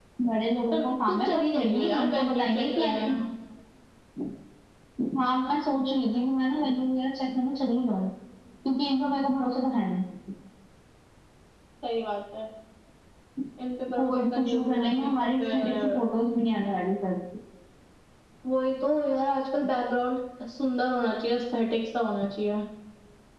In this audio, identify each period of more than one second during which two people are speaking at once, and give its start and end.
0.7-3.1, 13.9-16.0

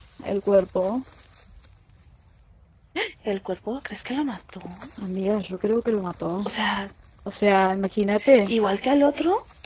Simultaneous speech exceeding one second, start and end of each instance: none

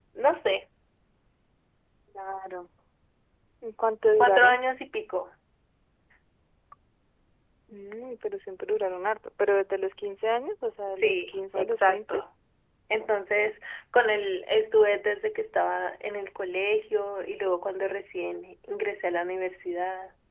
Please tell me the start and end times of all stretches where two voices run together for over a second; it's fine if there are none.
11.0-12.2

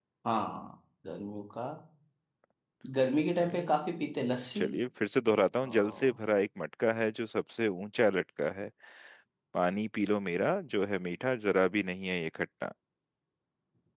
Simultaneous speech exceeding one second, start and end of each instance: 3.4-4.6

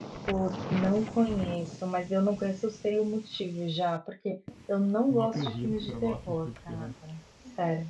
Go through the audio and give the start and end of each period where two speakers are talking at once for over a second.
5.1-6.9

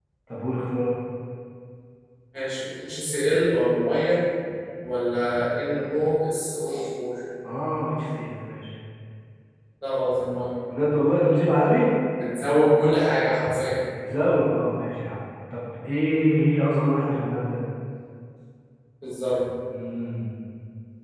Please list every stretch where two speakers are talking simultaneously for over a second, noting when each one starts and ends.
none

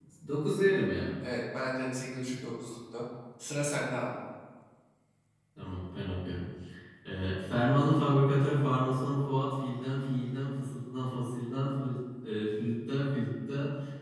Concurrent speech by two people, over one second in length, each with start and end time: none

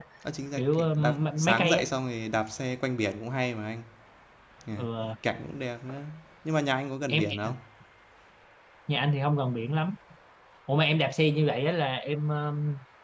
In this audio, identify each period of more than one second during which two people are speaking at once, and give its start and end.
0.6-1.8

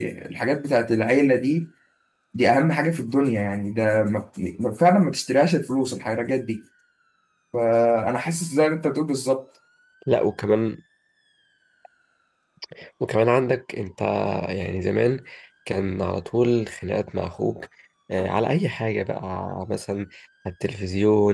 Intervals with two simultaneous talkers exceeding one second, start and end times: none

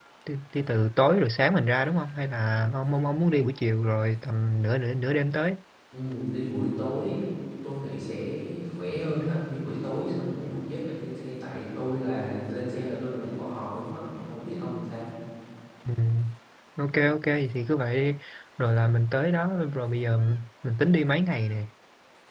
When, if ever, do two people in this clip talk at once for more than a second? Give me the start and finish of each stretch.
none

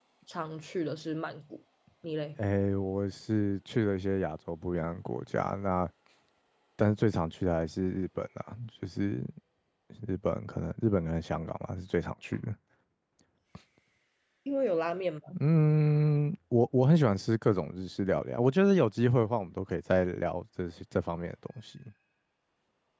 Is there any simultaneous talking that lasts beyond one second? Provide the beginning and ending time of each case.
none

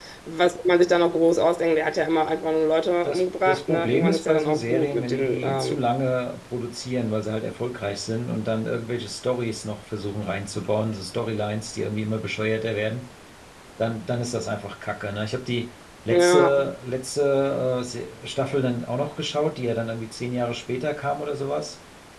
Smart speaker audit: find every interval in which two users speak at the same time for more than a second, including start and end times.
3.0-5.8

